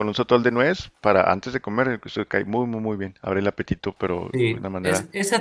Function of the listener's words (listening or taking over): taking over